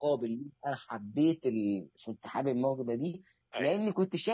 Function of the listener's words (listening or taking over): listening